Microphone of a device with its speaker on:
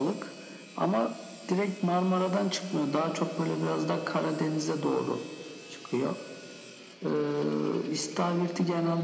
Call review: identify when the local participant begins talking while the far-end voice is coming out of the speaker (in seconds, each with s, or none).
none